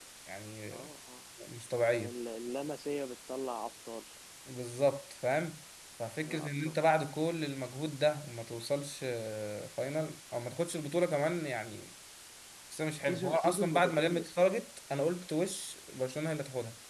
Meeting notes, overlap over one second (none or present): present